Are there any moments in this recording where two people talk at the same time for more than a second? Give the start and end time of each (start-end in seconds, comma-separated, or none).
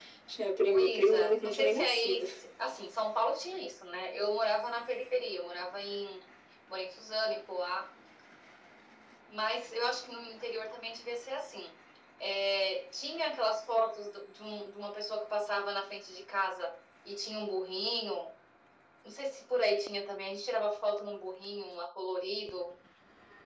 0.6-2.2